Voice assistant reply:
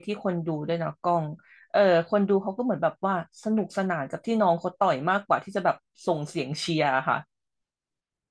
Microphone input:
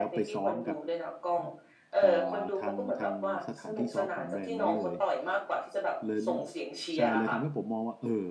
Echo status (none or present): present